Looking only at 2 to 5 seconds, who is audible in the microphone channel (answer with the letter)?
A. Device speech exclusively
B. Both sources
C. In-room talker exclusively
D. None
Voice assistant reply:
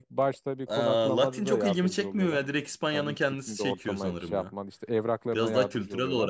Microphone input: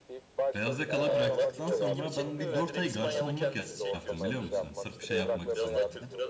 B